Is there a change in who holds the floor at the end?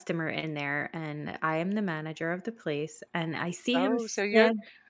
Yes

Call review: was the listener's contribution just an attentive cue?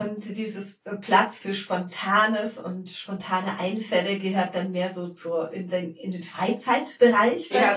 No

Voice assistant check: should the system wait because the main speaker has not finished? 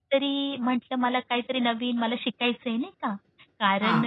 Yes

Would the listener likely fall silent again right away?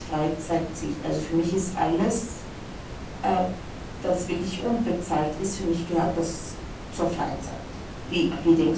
No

